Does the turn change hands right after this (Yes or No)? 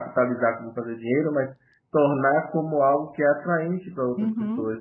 Yes